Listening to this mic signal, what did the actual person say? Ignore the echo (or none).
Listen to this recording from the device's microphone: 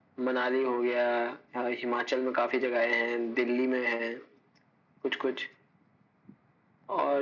none